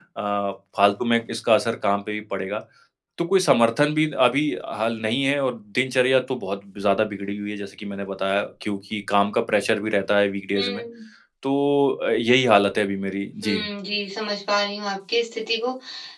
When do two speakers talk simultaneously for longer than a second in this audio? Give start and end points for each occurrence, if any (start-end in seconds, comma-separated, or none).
none